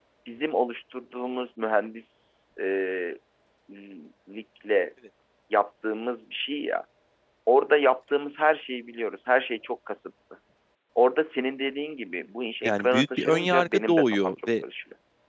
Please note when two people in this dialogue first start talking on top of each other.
12.6 s

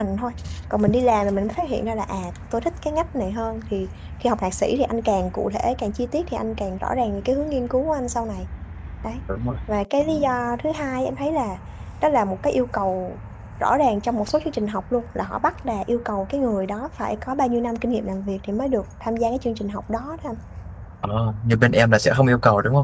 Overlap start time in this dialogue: none

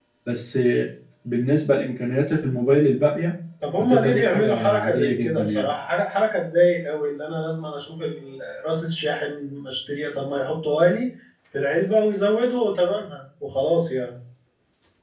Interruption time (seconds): 3.8 s

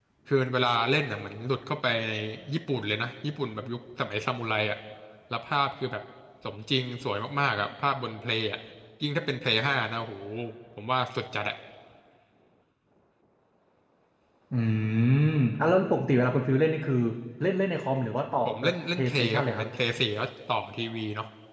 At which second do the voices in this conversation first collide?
18.4 s

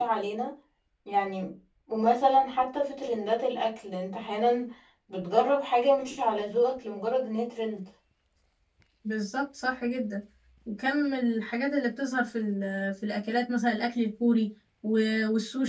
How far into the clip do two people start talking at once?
none

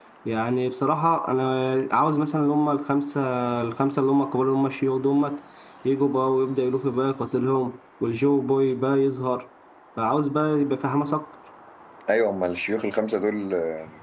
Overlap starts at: none

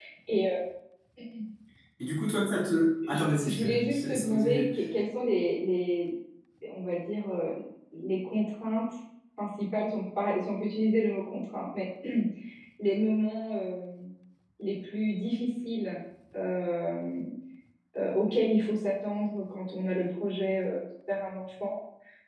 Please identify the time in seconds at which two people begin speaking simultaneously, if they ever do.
3.1 s

